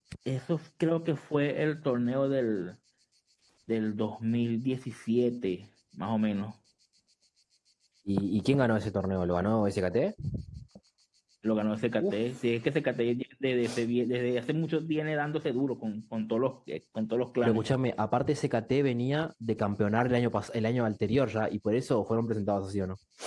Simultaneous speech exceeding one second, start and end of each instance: none

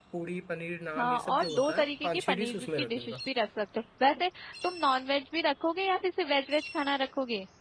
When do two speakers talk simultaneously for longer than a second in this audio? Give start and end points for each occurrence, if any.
1.0-3.2

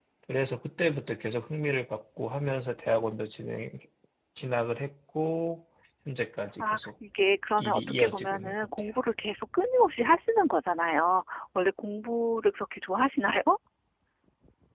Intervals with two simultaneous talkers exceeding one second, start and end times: 7.6-8.9

